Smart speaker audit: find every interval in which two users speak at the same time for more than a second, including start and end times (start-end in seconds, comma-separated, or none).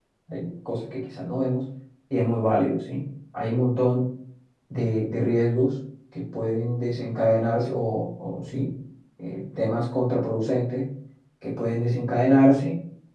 none